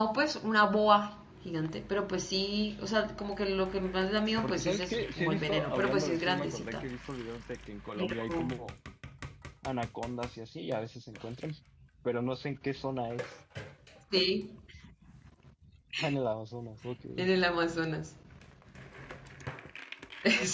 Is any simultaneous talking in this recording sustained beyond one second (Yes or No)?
Yes